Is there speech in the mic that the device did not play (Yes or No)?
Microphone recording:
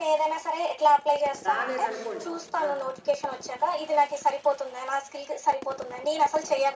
Yes